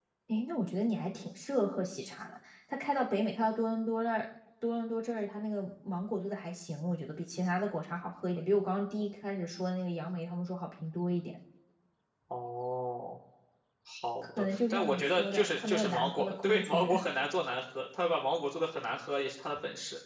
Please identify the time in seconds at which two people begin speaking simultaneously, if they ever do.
14.2 s

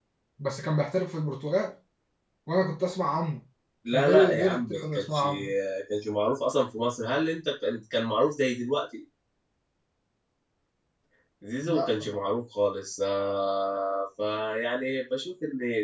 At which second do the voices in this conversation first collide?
3.9 s

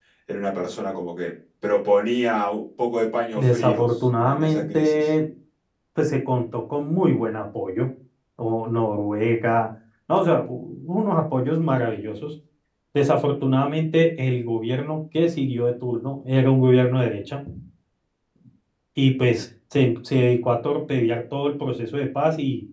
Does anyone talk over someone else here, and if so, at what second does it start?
3.4 s

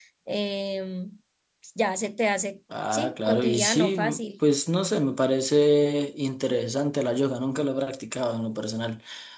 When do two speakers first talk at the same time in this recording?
2.7 s

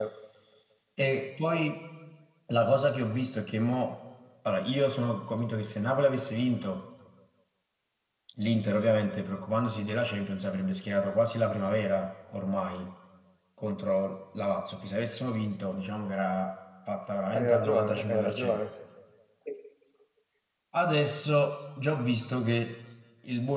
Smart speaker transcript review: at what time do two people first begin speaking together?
17.3 s

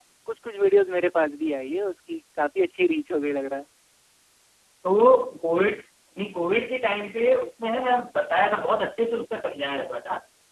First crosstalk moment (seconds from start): none

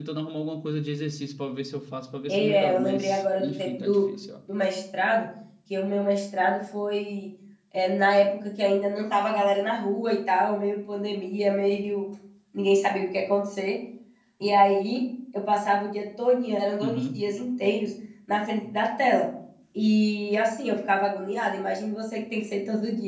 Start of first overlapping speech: 2.3 s

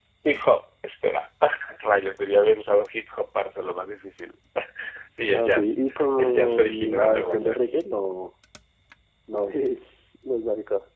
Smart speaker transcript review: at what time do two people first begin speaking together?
5.3 s

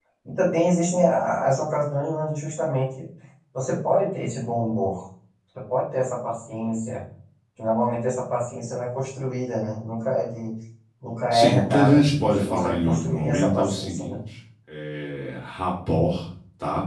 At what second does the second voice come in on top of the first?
11.3 s

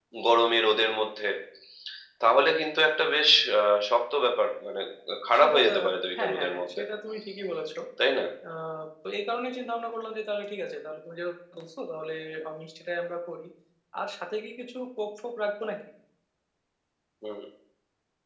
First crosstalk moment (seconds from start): 5.4 s

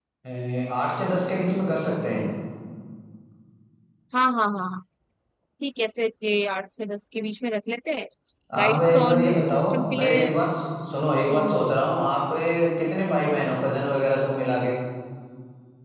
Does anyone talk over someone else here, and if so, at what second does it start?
8.6 s

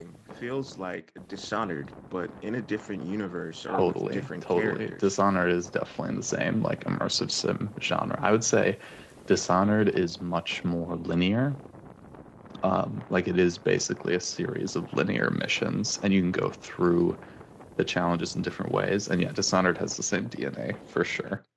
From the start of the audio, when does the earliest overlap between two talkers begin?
3.7 s

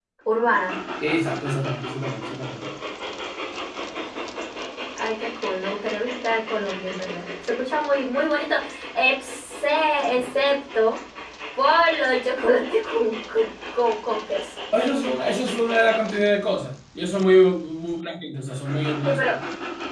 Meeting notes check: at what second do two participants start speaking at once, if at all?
none

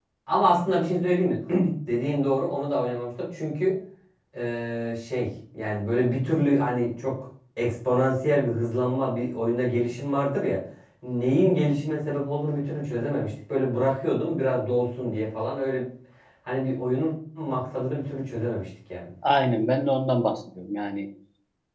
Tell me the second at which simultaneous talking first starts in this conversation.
none

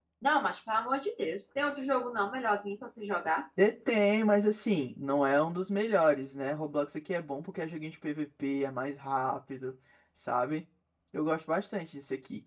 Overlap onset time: none

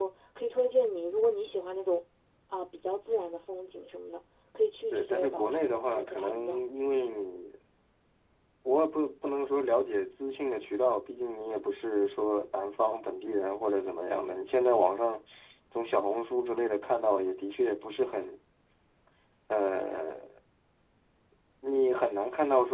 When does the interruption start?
4.9 s

